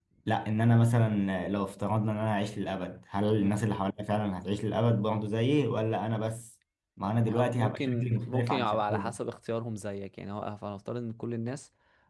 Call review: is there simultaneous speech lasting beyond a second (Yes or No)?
Yes